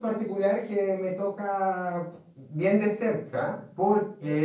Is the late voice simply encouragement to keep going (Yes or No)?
Yes